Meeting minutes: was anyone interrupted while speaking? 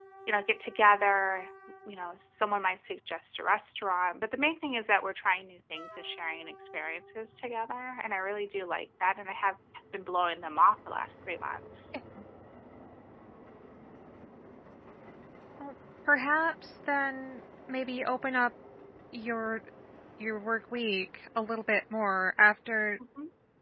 No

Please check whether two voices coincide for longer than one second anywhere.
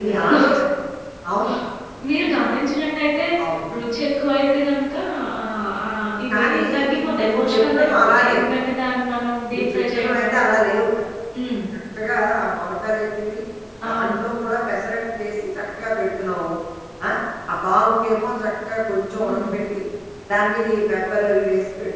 Yes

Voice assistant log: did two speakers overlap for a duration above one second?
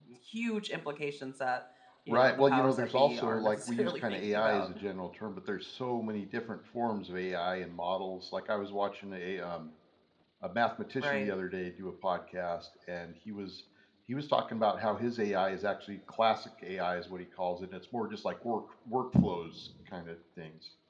Yes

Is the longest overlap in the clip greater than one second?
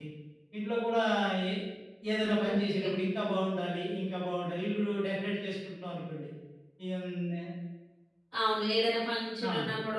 No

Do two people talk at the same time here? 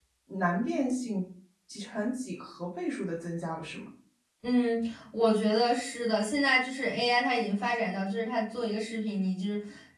No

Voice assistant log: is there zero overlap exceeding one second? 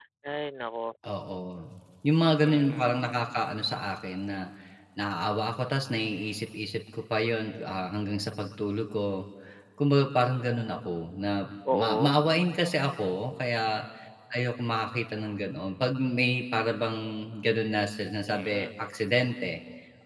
Yes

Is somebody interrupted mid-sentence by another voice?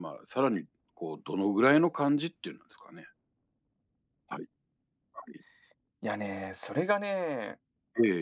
No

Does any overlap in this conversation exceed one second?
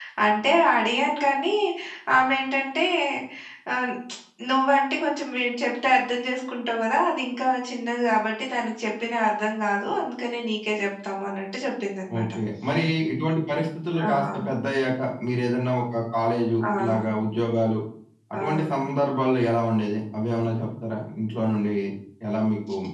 No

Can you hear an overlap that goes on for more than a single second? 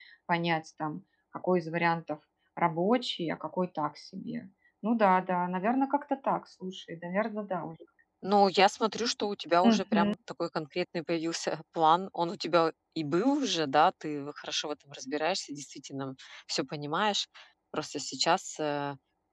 No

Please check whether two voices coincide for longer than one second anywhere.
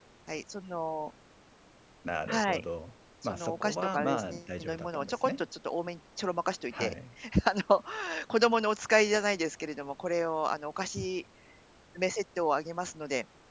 Yes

